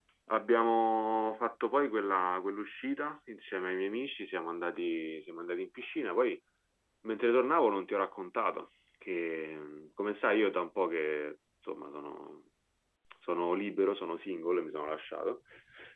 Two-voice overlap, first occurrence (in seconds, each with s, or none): none